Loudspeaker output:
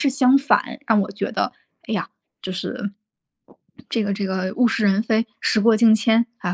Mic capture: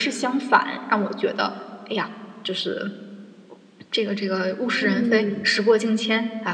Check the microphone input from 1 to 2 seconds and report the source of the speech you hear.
echo only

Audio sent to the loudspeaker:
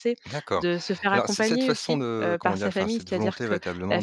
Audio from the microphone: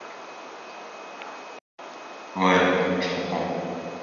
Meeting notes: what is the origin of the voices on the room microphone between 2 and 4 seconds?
user only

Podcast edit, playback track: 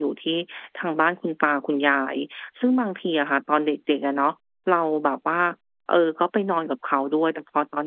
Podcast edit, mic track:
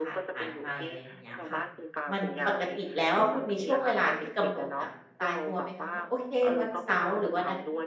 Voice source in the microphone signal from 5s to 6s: both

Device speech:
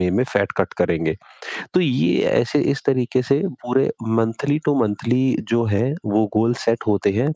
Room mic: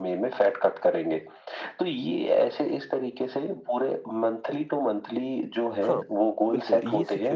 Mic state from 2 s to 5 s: echo only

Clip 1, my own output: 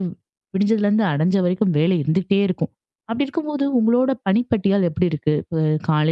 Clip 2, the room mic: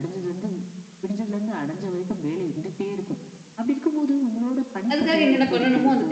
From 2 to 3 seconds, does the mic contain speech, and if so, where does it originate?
echo only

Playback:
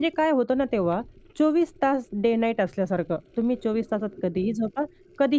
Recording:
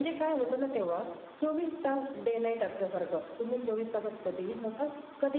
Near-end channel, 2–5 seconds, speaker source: echo only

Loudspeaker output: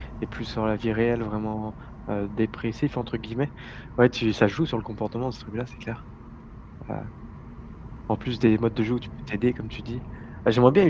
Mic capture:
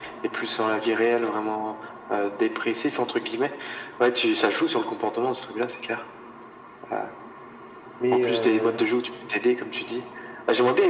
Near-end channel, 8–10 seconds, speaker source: both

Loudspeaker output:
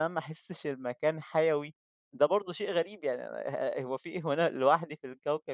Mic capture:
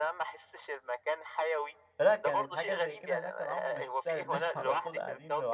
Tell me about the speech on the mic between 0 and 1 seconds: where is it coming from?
echo only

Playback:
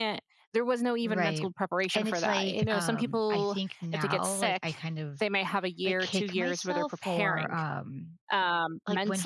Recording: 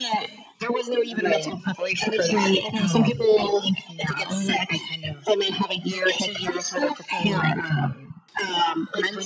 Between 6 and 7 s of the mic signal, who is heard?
echo only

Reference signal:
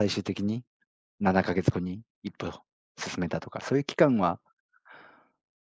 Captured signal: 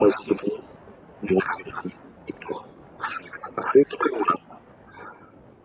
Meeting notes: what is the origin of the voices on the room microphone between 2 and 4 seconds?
echo only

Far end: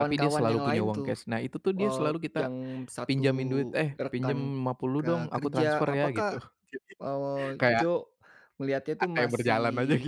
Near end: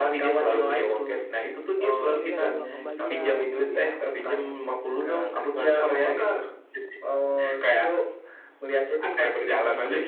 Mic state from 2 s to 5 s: both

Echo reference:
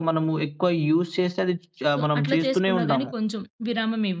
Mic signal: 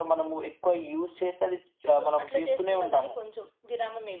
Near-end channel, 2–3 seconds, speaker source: echo only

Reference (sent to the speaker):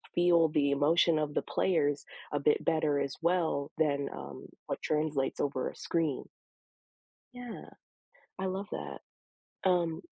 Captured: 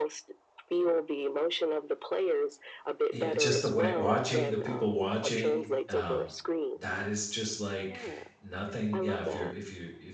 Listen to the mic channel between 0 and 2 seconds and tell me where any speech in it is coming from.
echo only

